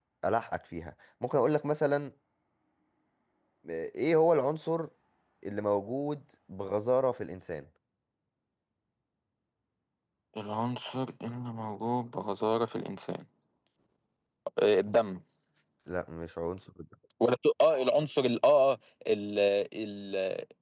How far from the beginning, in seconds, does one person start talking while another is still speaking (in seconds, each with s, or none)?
none